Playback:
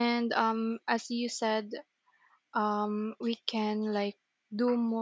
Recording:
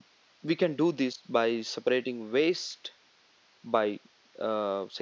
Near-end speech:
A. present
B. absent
A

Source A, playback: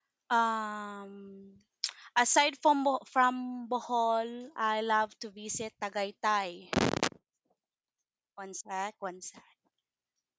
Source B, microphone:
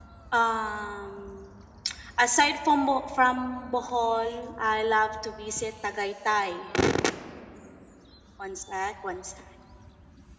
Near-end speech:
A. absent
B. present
A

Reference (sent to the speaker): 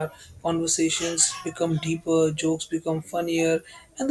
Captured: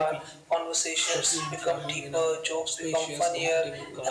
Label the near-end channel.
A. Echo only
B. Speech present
B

